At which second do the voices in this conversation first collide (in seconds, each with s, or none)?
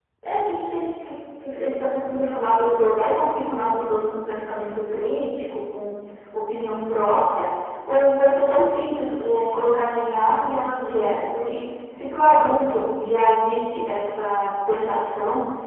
none